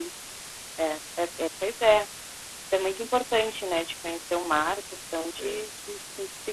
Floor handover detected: No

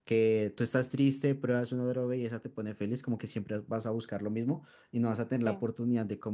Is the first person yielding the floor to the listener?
No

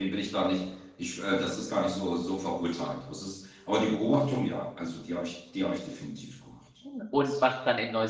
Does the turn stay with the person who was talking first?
No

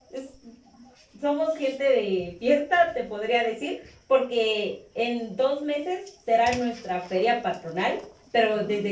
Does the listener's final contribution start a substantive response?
No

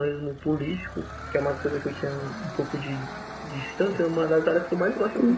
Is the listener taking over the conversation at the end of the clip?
No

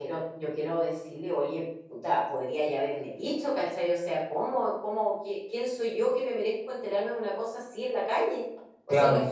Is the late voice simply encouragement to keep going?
Yes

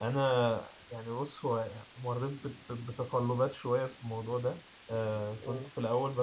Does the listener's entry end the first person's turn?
No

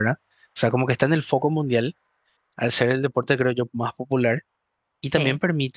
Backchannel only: Yes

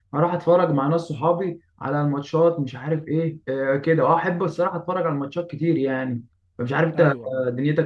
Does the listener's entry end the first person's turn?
No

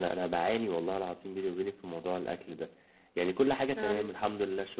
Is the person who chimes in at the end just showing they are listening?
Yes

